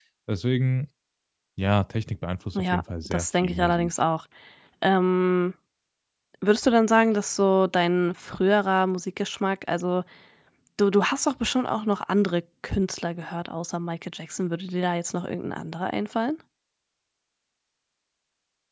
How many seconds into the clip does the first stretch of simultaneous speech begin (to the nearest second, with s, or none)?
3 s